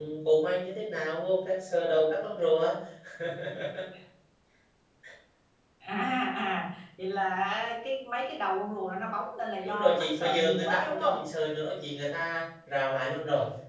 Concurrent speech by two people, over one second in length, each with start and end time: 9.6-11.2

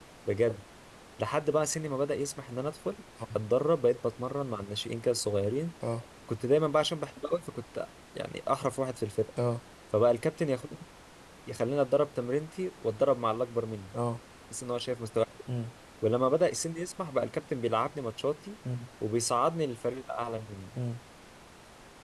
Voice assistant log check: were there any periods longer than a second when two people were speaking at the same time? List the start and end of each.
none

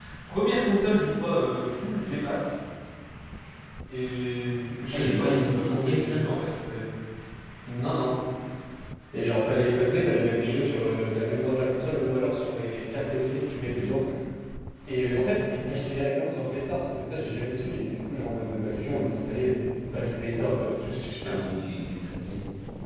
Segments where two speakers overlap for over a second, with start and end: 4.9-6.2

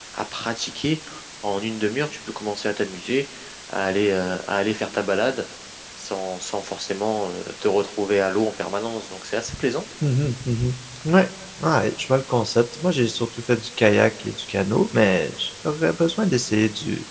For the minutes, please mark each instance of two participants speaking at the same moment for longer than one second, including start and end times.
none

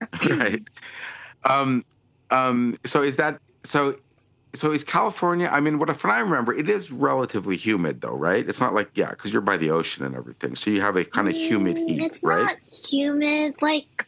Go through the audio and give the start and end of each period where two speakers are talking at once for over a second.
11.2-12.5

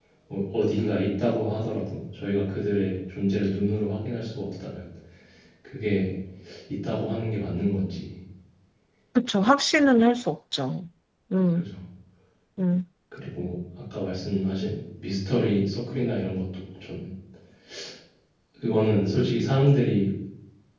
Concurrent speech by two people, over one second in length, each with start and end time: none

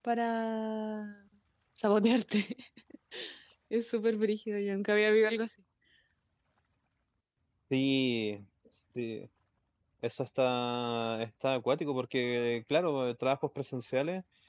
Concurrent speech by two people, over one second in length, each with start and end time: none

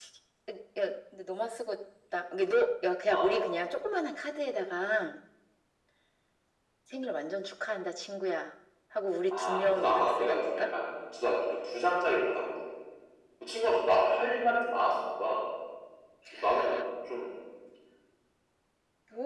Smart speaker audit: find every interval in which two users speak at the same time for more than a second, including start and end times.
9.3-10.7

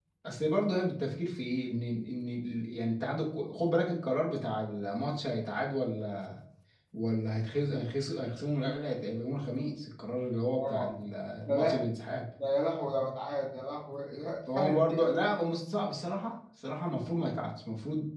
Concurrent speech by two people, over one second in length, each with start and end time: none

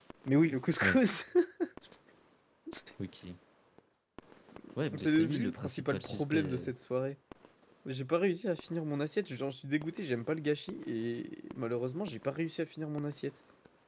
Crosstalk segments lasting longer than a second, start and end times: 5.0-6.7

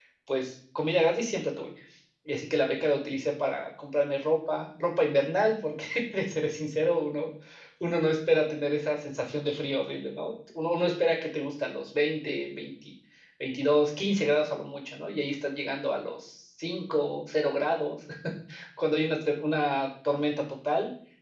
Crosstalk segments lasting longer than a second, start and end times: none

